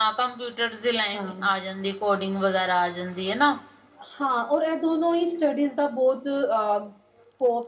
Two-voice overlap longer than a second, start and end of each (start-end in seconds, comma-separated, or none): none